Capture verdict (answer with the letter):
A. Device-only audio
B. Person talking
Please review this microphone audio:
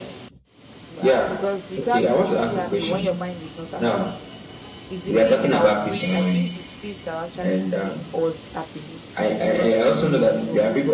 A